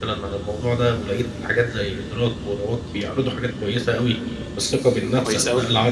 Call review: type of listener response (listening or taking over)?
listening